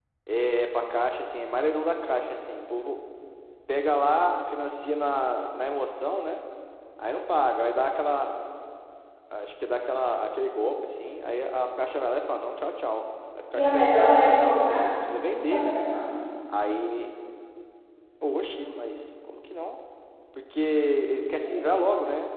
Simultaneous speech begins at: 13.6 s

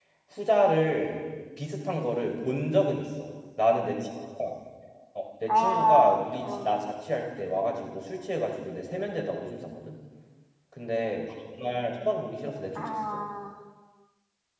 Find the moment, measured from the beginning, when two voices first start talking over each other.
5.5 s

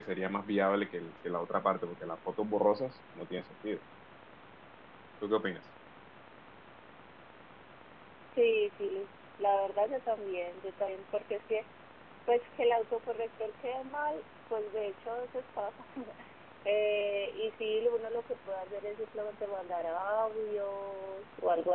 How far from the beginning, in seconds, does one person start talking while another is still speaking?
none

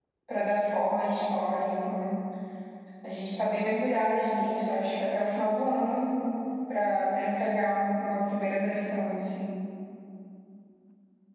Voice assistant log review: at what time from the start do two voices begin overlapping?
none

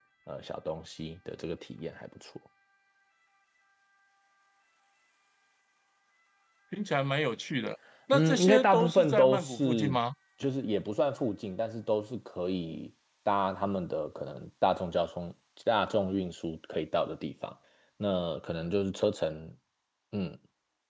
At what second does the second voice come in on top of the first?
8.1 s

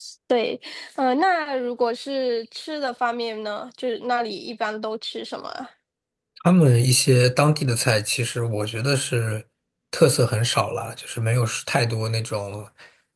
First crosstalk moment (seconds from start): none

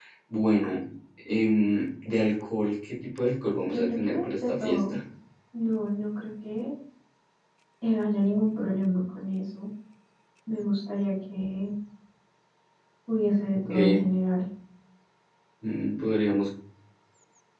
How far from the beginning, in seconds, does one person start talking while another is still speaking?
3.7 s

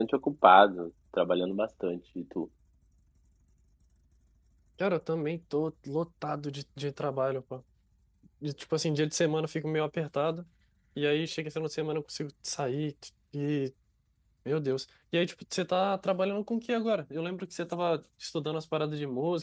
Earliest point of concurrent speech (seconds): none

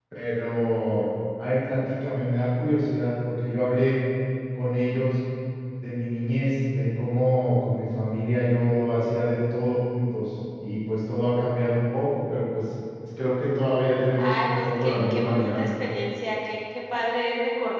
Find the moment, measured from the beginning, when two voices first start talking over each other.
14.2 s

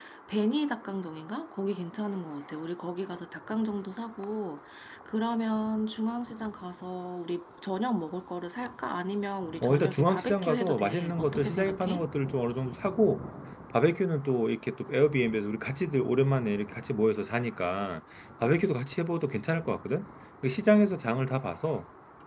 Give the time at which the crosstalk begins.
9.6 s

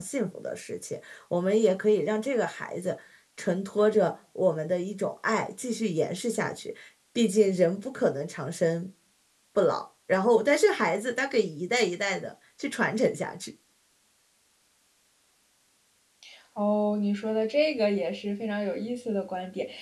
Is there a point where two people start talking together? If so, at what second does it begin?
none

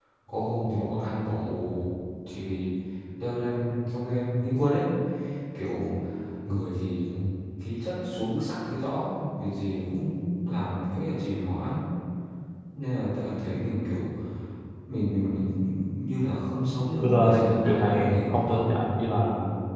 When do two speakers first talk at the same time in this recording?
17.0 s

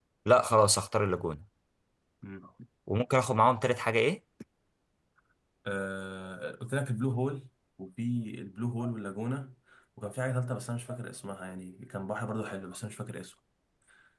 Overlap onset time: none

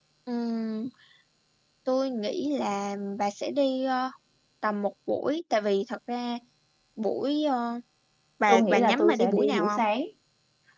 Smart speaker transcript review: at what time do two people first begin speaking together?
8.5 s

